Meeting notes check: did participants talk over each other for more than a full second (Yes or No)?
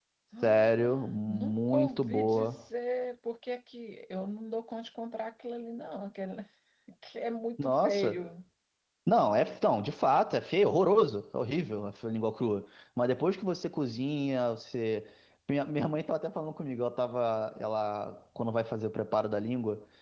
Yes